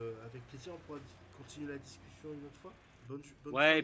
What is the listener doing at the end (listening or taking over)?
taking over